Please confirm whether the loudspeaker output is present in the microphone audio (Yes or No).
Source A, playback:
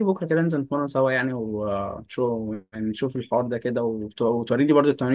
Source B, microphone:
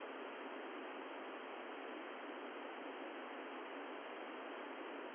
No